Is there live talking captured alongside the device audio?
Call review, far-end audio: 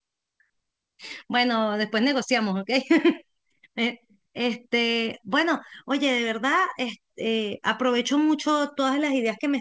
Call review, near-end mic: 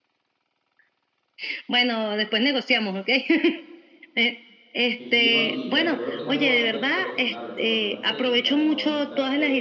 Yes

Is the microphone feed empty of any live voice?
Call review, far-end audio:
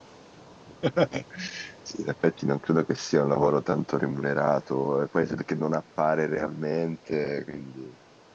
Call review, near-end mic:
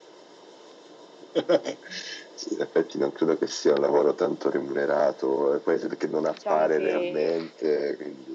No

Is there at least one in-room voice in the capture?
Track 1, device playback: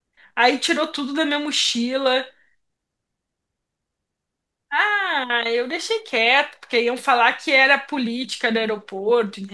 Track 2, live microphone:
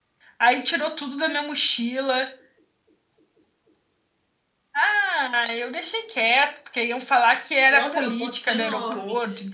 Yes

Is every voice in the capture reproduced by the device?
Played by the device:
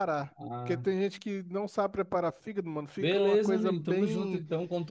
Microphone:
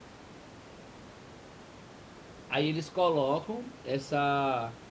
No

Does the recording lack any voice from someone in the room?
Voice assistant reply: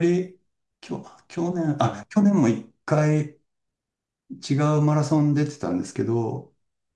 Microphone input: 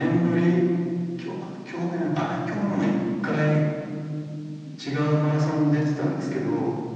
Yes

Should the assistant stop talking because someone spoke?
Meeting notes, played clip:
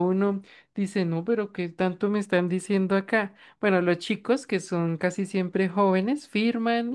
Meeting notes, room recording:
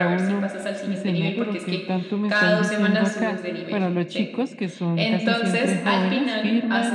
Yes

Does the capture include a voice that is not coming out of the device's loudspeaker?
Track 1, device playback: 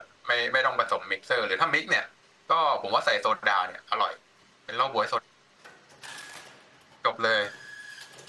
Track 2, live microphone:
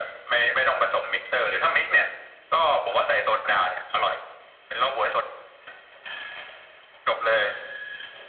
No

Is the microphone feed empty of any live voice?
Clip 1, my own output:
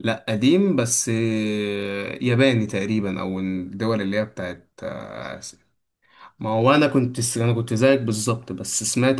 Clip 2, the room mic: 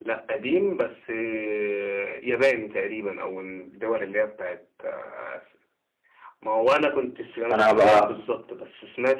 No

